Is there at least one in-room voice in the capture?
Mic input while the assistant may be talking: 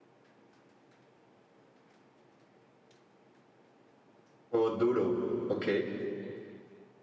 Yes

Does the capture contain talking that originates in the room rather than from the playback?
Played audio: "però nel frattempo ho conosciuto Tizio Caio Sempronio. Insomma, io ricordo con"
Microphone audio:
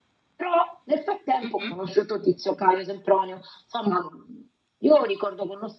Yes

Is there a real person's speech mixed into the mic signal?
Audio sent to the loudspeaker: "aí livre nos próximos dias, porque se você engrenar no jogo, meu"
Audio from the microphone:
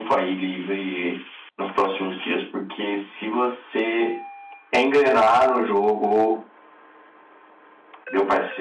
No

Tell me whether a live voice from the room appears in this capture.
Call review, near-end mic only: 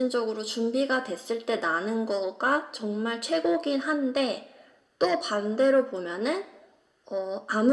No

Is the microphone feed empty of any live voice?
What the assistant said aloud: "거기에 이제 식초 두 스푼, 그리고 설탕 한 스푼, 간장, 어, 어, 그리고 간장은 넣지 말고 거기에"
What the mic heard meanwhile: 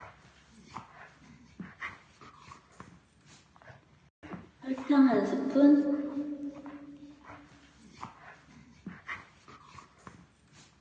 No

